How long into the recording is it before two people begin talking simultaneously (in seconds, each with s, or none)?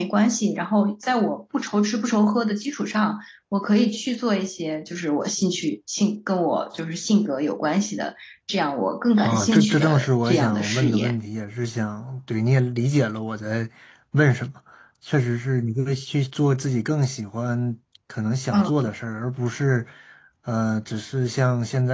9.2 s